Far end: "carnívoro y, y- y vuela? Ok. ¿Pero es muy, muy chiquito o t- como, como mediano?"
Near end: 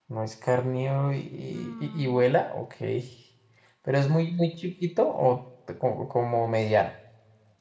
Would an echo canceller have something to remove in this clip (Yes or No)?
Yes